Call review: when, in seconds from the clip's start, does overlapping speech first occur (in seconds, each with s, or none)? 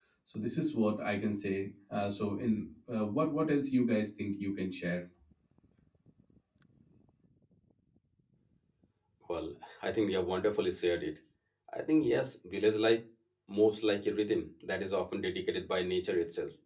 none